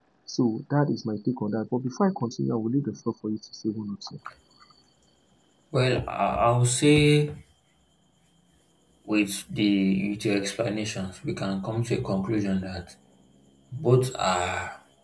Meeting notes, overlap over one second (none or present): none